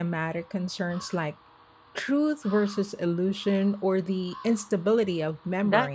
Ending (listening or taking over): taking over